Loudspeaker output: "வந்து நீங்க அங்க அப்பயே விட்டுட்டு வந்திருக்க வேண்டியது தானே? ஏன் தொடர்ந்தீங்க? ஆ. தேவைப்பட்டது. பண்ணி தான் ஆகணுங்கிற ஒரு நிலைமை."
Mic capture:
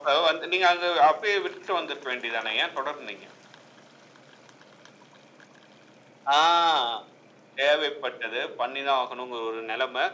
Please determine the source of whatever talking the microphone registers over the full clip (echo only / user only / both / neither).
echo only